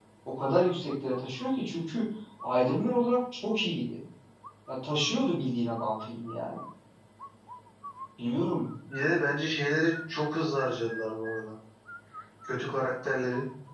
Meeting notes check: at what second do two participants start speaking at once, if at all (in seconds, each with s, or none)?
none